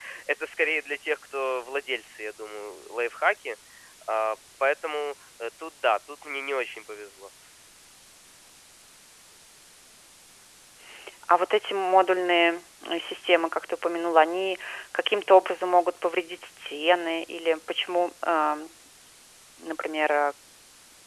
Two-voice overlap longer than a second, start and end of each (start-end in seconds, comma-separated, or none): none